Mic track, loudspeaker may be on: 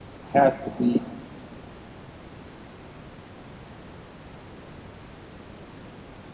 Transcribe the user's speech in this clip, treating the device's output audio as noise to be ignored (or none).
has to be